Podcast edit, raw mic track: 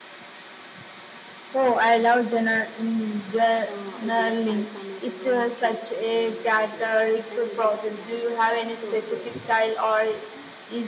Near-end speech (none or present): present